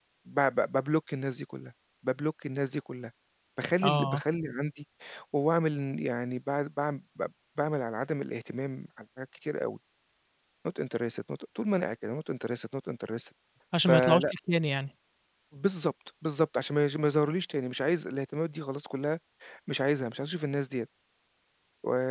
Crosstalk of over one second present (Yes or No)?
No